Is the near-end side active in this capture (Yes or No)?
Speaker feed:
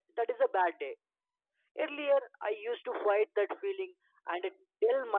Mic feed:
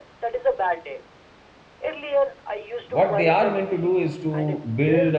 Yes